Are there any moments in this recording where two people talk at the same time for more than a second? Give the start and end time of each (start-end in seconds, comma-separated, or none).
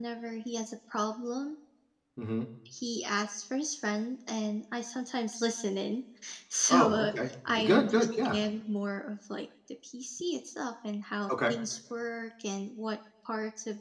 6.7-8.4